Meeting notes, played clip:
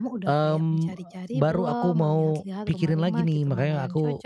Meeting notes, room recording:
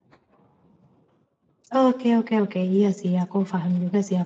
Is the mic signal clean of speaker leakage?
Yes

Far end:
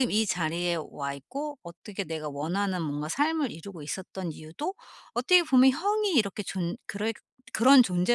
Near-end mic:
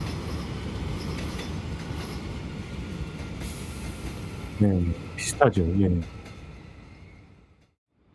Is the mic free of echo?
Yes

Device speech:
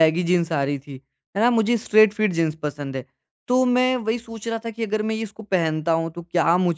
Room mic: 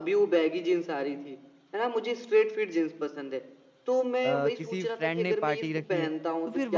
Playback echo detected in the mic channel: Yes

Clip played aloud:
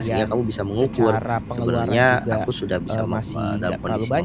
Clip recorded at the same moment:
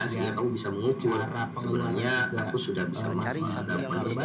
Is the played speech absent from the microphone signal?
No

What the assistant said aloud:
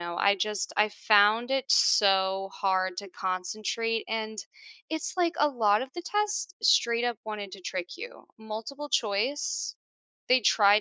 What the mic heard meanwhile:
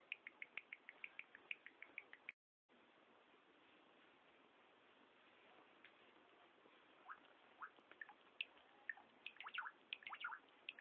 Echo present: No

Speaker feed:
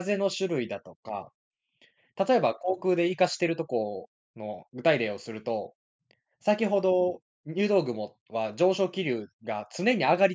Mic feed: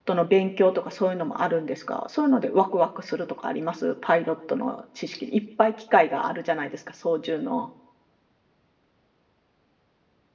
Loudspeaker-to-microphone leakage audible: No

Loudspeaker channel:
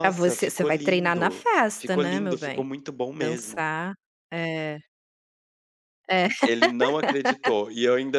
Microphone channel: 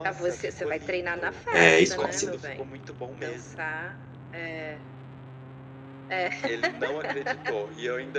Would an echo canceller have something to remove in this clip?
Yes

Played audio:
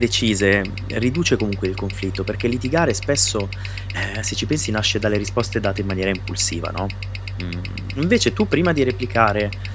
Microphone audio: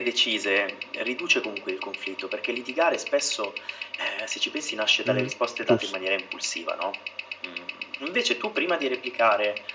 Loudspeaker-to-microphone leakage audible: Yes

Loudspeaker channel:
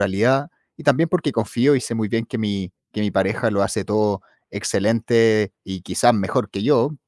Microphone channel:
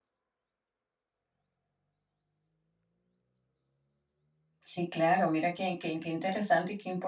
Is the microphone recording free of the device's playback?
Yes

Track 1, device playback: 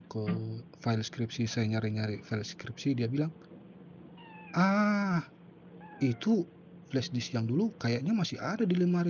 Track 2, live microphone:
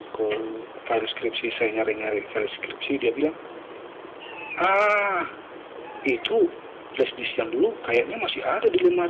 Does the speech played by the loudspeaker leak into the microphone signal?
Yes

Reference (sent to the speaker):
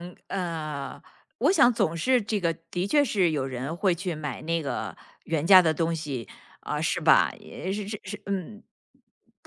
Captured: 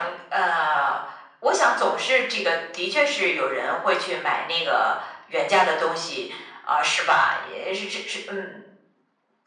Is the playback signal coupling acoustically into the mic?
Yes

